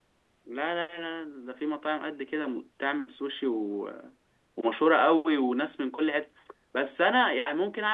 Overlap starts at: none

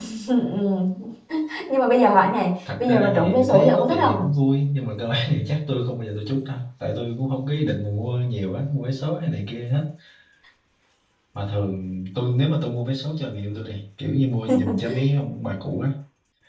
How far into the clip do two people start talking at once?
3 s

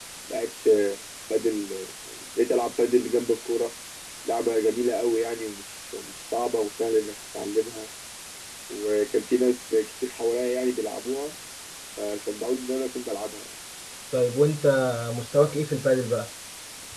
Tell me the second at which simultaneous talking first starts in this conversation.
none

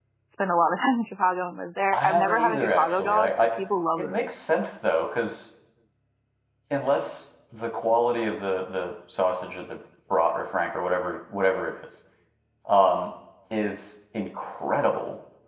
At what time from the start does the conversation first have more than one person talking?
2 s

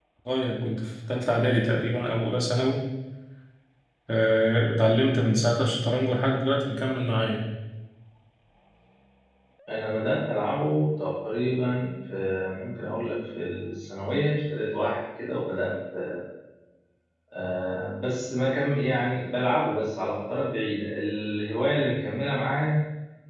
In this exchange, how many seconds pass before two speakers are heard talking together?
none

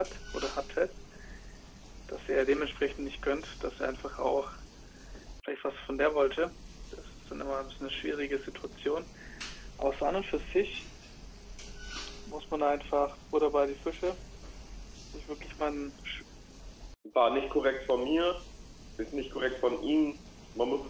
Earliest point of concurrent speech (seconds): none

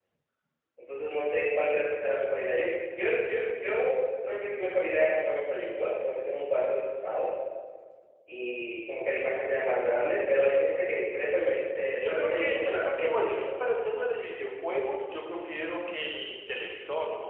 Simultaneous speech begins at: 12 s

